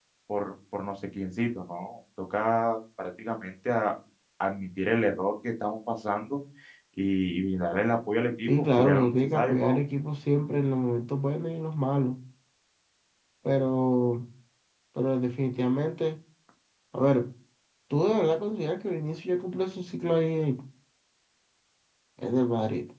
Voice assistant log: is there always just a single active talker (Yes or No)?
No